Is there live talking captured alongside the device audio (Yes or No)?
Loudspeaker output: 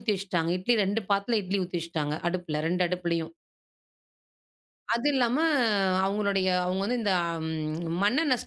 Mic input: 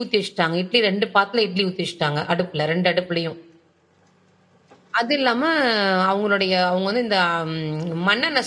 No